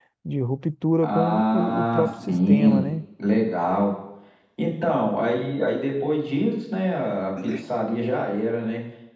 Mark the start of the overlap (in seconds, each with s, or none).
1.0 s